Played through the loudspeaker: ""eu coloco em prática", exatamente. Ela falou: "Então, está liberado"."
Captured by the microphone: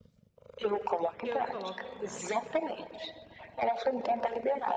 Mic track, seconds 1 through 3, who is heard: both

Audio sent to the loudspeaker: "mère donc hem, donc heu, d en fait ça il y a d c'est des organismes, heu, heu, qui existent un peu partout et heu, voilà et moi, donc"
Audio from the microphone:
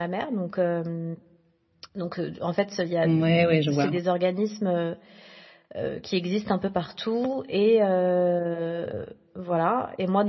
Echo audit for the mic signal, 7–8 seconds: echo only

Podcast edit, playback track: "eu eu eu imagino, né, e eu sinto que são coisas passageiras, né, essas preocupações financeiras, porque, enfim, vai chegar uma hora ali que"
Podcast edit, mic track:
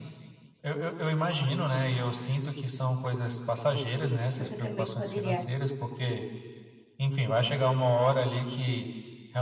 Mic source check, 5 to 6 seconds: both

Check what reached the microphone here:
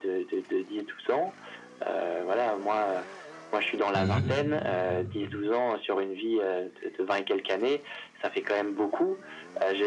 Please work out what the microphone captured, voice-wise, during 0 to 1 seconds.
echo only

